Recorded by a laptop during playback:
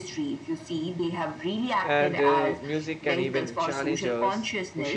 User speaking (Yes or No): Yes